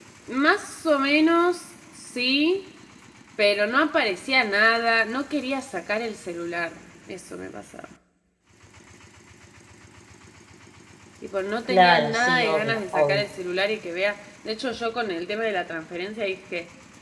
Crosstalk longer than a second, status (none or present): present